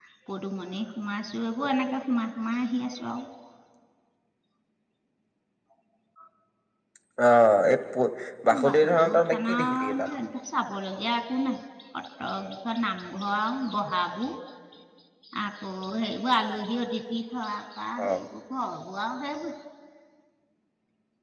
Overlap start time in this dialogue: 9 s

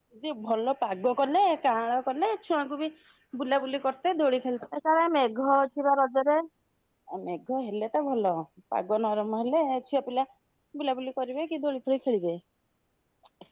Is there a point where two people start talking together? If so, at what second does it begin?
none

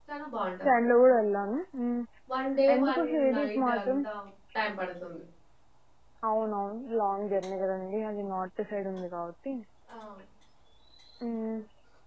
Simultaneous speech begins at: 3 s

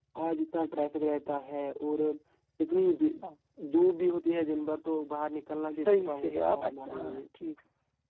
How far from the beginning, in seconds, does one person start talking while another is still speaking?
6 s

